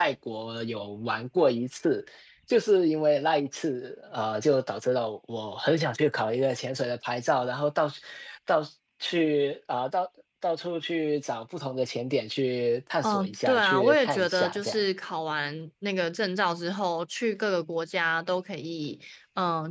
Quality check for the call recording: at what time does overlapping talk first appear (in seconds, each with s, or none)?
13.0 s